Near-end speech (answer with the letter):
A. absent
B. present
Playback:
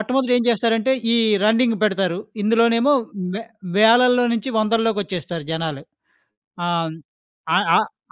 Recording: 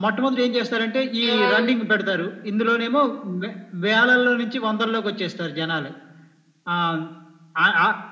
B